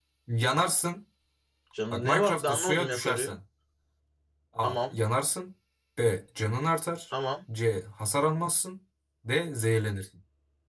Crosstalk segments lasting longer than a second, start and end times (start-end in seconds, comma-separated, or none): 1.9-3.3